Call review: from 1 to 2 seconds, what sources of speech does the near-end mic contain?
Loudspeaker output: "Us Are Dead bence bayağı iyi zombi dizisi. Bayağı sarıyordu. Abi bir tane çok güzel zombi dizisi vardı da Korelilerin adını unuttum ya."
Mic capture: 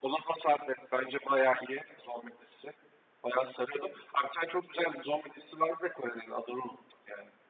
echo only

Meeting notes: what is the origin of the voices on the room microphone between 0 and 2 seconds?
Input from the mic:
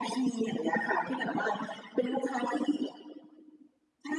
echo only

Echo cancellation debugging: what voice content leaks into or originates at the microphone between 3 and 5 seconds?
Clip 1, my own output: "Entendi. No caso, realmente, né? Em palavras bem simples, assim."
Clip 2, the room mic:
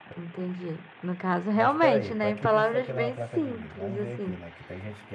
both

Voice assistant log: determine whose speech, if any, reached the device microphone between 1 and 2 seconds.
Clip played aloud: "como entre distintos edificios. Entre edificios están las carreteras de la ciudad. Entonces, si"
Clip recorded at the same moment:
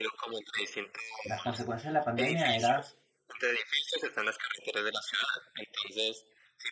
both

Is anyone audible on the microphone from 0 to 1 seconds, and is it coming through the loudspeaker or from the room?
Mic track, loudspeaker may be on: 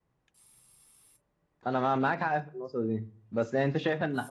neither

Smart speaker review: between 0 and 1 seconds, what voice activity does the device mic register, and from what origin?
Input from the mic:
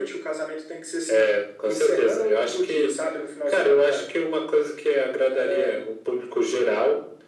echo only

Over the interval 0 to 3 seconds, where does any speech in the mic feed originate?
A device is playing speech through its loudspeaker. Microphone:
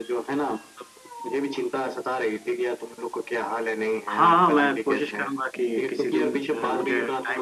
echo only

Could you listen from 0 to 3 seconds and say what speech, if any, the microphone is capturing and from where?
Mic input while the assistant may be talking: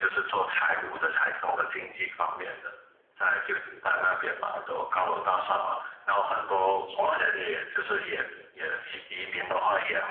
echo only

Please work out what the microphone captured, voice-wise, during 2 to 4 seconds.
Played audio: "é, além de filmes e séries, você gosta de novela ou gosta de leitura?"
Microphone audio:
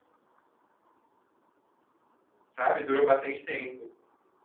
user only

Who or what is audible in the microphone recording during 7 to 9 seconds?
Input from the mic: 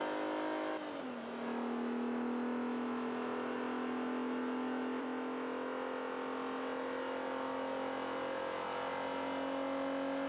neither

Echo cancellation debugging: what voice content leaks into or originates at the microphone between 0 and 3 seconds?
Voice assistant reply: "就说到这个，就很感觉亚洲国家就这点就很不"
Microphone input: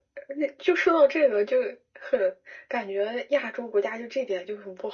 echo only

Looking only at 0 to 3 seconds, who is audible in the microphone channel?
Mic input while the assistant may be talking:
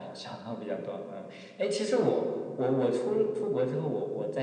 echo only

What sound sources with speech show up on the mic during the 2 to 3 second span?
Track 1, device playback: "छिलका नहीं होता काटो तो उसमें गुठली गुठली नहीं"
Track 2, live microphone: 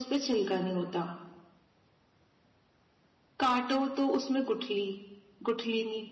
neither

